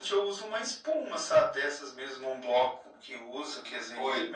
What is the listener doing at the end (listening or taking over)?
taking over